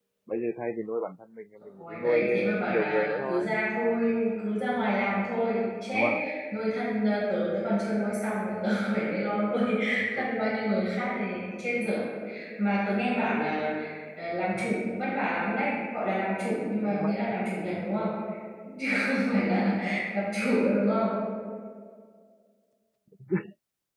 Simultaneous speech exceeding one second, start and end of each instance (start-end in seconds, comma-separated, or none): 1.8-3.6